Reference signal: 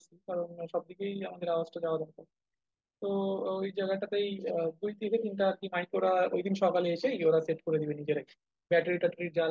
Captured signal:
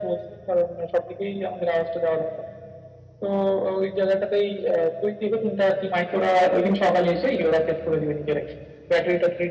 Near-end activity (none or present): none